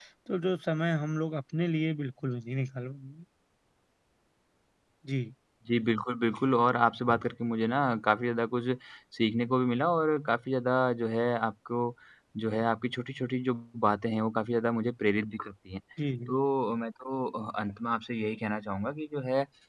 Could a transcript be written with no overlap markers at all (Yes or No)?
Yes